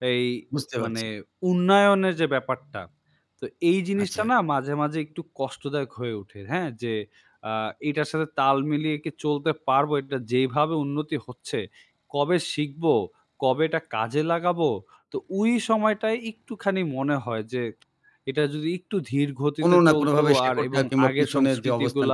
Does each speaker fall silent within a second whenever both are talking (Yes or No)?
No